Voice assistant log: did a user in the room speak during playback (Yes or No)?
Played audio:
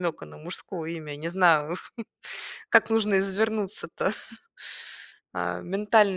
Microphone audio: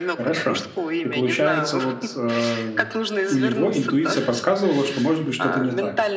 Yes